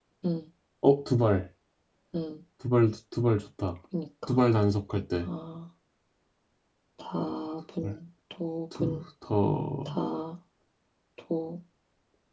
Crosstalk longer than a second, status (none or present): none